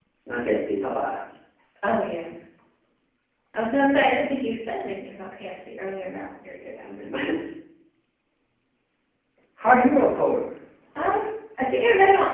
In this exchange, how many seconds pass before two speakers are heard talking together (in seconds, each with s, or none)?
none